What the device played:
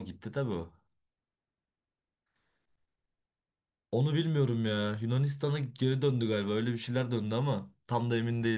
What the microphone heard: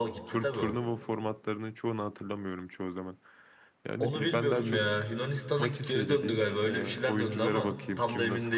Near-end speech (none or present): present